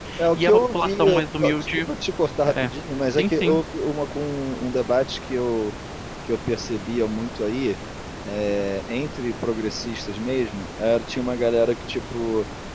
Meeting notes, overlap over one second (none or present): present